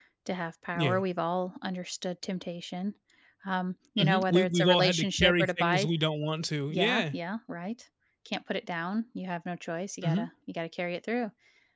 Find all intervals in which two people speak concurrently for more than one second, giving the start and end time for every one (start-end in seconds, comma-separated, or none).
4.0-5.9